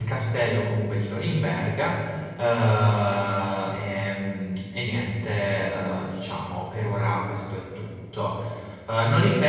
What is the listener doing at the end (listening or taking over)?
listening